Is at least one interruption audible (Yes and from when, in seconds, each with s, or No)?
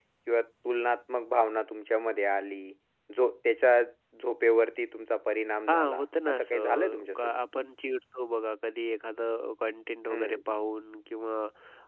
Yes, from 5.7 s